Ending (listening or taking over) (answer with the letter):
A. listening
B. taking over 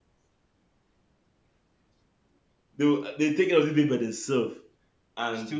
A